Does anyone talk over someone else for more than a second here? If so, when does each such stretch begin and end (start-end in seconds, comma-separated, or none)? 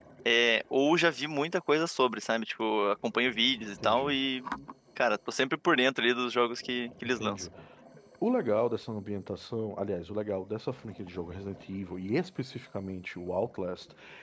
none